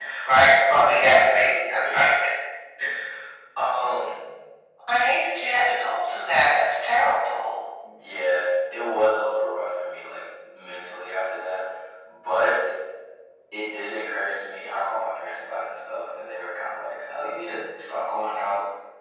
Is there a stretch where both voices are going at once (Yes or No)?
Yes